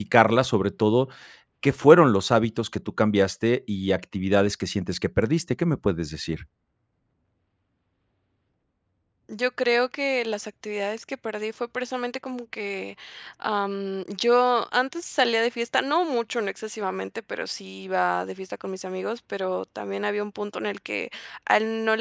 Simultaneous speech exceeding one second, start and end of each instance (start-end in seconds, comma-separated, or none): none